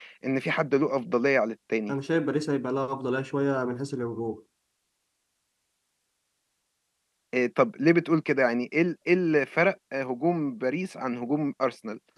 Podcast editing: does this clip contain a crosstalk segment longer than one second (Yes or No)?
No